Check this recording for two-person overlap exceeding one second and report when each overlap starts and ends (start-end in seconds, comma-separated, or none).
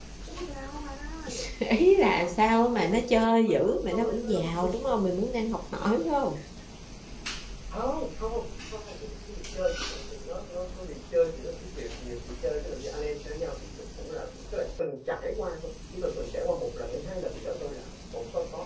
2.0-4.5